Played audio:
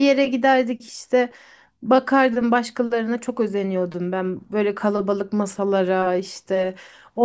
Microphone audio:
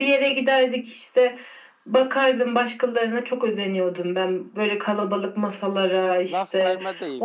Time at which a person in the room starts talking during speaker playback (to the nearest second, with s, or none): 6 s